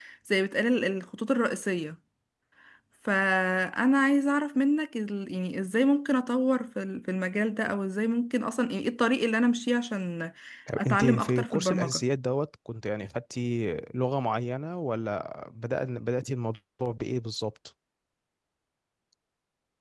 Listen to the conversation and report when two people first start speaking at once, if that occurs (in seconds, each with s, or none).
10.8 s